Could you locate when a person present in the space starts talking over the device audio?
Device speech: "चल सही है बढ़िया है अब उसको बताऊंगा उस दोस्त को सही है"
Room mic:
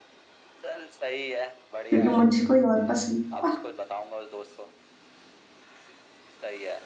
1.9 s

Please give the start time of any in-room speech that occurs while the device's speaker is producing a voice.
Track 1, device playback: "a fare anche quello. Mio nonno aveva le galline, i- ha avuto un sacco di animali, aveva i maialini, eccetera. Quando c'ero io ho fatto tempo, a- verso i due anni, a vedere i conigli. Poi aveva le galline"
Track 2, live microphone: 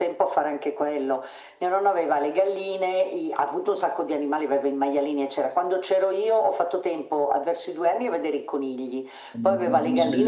9.3 s

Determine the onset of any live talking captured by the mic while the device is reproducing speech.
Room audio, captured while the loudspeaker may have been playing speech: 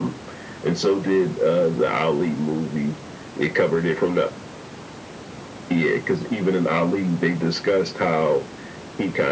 none

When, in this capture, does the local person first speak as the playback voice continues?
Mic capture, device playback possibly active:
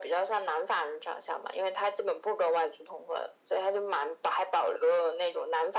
none

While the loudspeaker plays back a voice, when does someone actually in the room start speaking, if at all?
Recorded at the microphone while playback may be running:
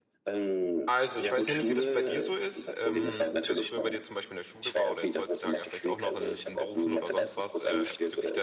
0.8 s

